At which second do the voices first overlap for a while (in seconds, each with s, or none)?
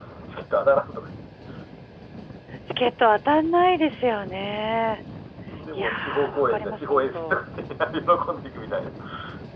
5.8 s